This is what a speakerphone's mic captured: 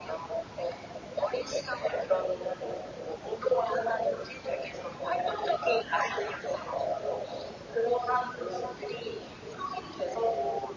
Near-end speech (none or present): none